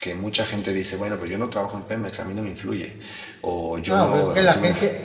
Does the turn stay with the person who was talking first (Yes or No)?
No